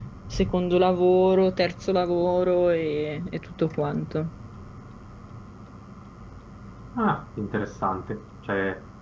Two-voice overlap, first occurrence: none

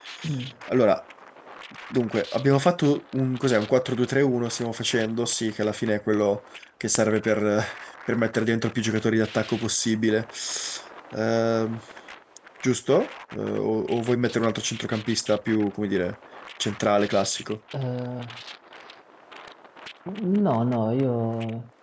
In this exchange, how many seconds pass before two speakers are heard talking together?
none

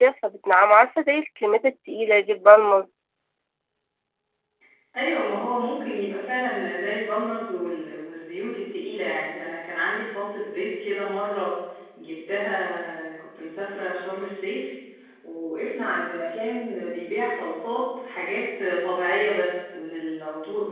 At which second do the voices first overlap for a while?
none

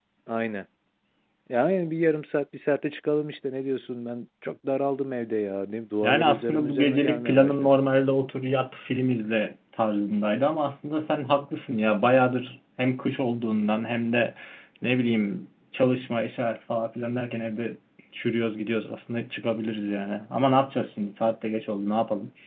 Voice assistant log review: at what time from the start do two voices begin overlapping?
6.0 s

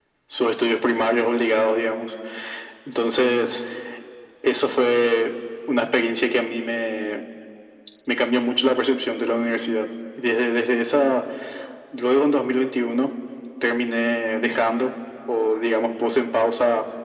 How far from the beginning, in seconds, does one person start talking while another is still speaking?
none

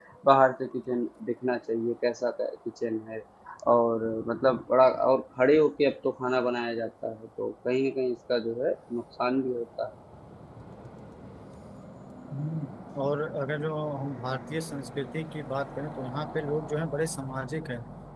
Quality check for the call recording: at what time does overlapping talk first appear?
none

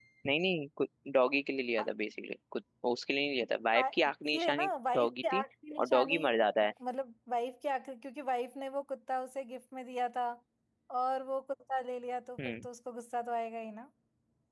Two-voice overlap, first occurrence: 3.7 s

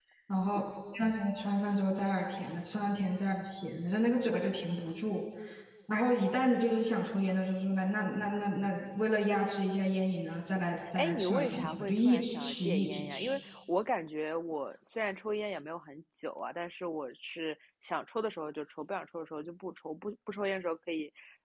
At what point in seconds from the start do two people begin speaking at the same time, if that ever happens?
10.8 s

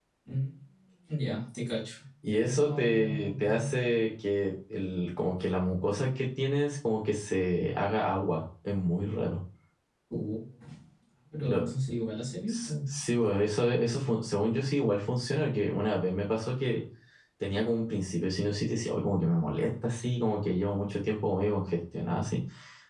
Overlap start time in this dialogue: 2.4 s

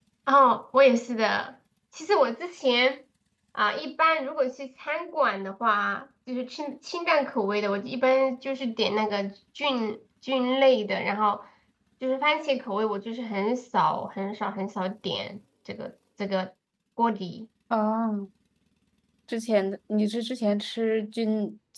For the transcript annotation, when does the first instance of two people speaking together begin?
none

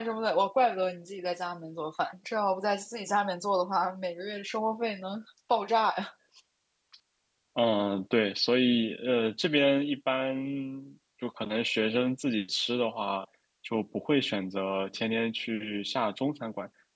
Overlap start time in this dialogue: none

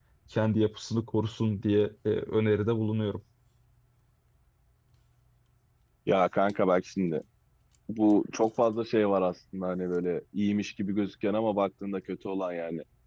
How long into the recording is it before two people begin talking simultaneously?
none

